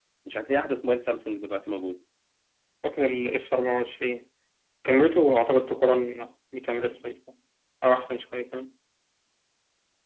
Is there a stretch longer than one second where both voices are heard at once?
No

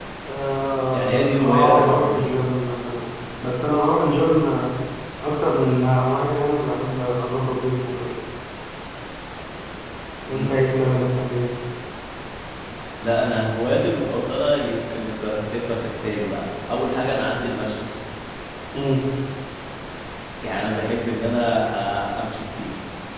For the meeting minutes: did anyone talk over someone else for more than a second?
Yes, from 0.9 s

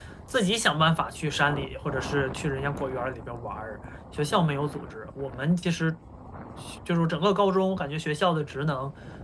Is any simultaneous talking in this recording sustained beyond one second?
No

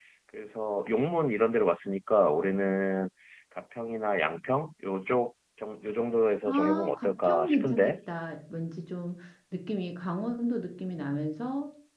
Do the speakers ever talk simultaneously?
Yes, from 6.5 s

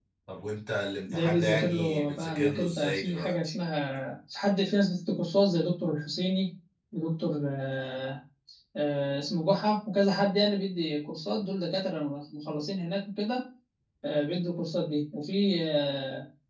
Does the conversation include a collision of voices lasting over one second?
Yes, from 1.1 s

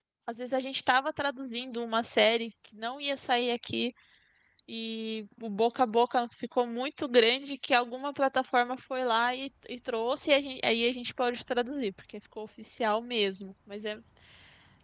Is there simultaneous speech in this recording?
No

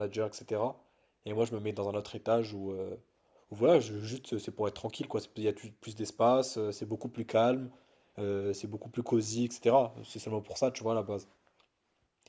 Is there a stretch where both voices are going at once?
No

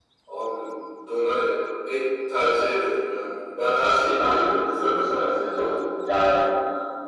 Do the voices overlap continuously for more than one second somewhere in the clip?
Yes, from 4.2 s

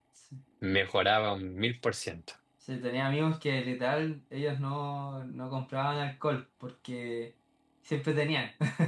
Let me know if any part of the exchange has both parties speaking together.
No

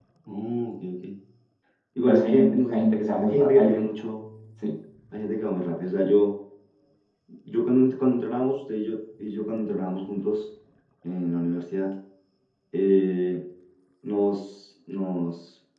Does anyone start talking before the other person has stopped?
Yes, from 2.1 s

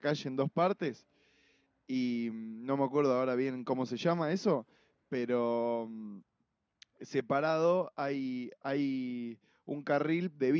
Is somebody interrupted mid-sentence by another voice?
No

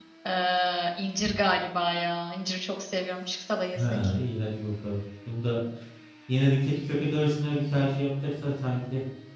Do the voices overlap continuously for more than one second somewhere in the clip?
No

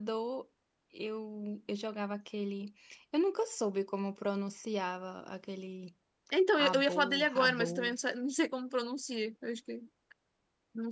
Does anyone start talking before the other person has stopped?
Yes, from 6.5 s

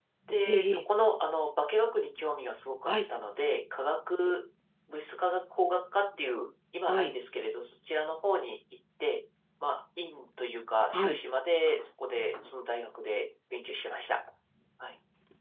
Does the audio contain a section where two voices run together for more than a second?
No

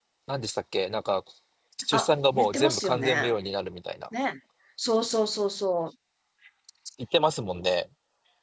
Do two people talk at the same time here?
Yes, from 1.9 s

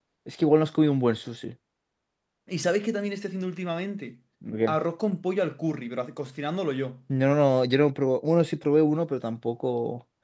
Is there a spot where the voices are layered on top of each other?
No

